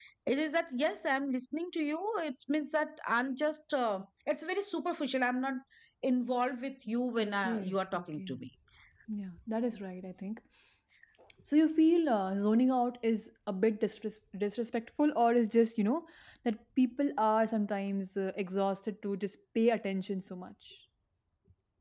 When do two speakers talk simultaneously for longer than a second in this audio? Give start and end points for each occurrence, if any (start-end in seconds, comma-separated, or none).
7.2-8.4